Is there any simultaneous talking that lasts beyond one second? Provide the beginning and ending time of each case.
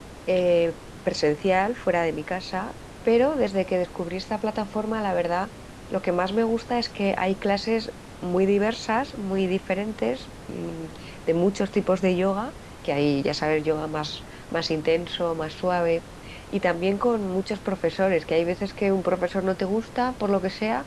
none

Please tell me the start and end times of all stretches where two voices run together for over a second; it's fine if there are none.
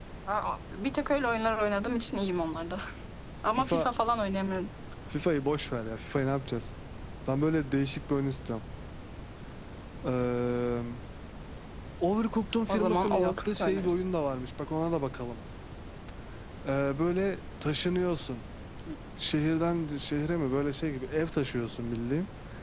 12.7-14.0

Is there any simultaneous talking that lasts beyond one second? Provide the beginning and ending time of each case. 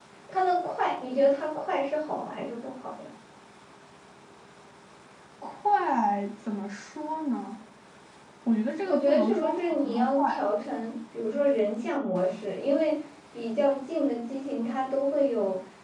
8.8-10.4

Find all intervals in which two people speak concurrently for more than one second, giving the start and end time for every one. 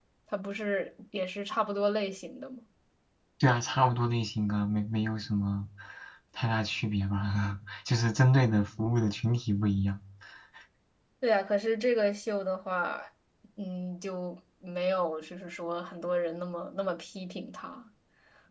none

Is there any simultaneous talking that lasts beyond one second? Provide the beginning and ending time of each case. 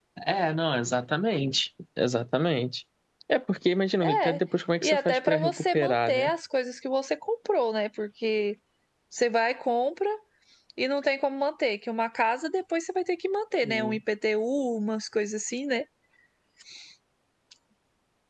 4.8-6.3

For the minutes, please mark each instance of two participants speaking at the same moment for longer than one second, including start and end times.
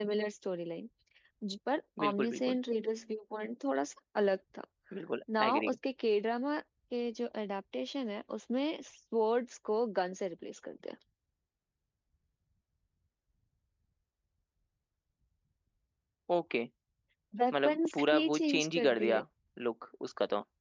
17.6-19.2

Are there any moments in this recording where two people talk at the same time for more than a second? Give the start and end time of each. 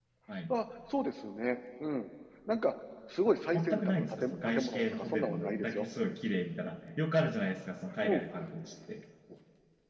3.5-5.8

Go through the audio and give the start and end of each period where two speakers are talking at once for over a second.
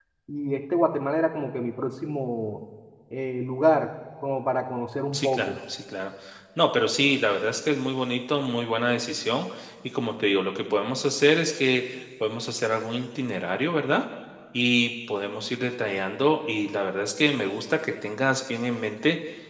none

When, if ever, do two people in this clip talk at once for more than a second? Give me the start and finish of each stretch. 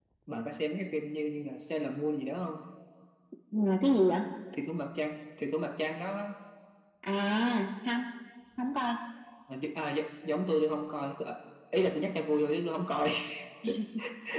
none

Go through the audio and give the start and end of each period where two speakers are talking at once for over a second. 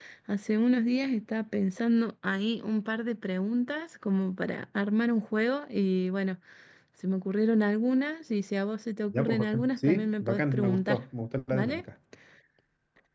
9.1-11.0

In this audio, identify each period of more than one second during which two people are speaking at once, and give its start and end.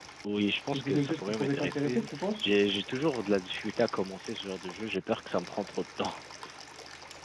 0.7-2.5

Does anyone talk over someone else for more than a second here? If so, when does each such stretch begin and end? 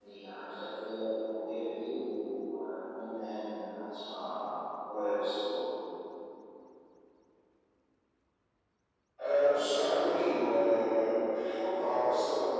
none

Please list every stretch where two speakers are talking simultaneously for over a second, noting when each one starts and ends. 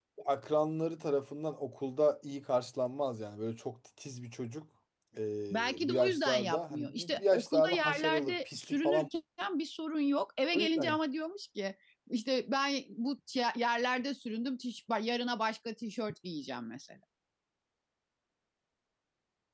5.5-9.1

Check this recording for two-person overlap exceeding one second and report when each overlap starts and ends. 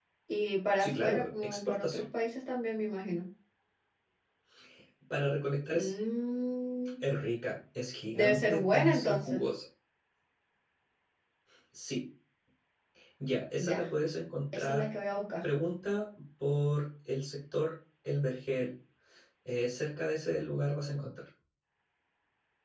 0.8-2.0, 8.1-9.4

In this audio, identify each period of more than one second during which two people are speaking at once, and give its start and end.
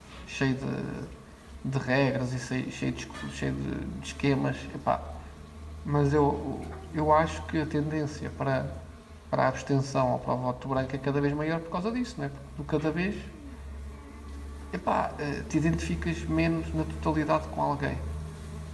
none

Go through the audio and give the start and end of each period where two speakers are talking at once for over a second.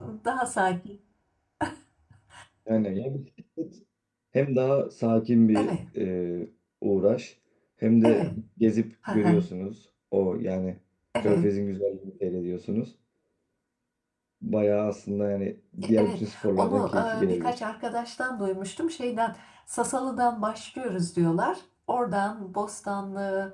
16.0-17.6

